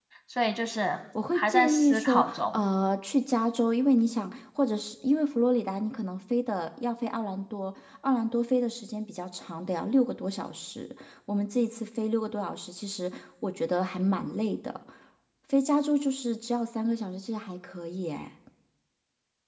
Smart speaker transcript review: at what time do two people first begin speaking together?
1 s

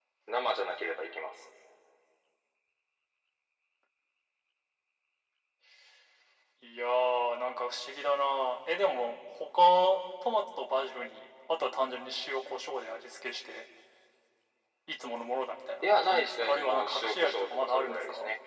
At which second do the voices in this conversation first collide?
16 s

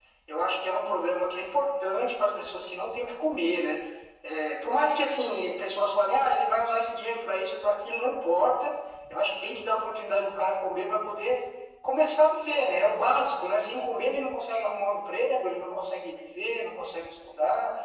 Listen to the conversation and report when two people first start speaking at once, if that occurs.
none

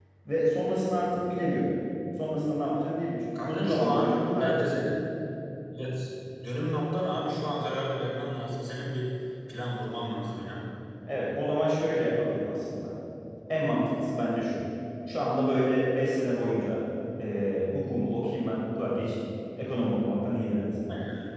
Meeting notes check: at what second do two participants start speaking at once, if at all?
3 s

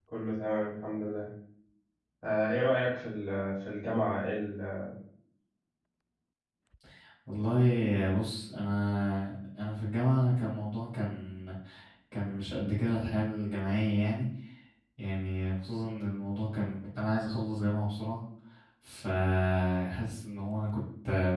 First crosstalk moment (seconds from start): none

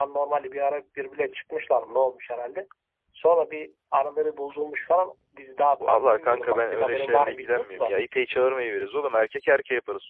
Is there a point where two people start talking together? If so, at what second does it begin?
6 s

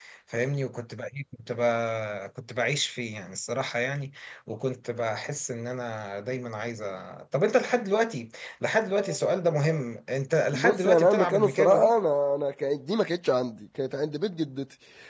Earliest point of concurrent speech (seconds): 11 s

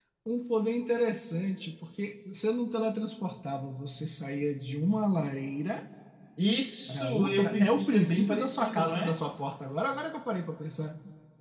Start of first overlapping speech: 7 s

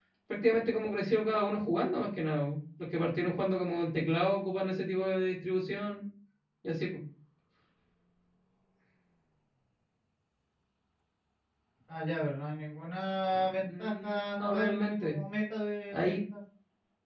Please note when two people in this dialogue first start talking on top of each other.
13 s

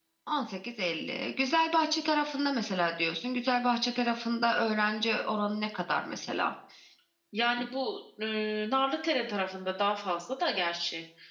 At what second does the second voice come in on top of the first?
none

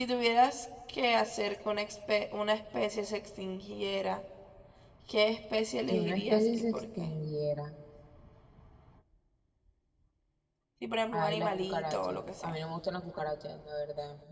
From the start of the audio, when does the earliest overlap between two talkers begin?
6 s

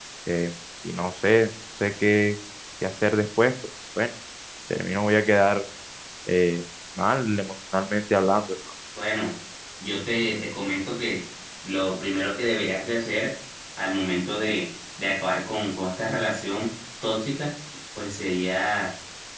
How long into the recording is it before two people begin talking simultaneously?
none

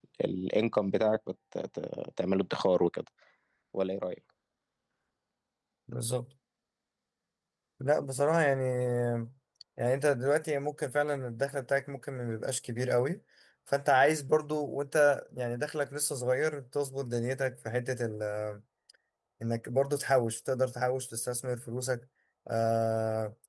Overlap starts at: none

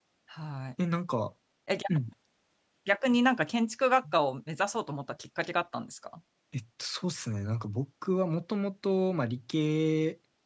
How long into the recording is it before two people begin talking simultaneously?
none

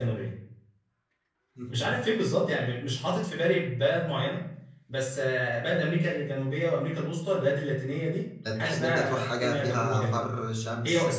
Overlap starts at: 9 s

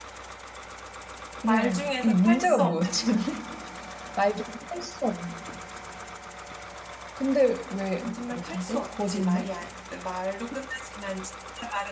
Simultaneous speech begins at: 1 s

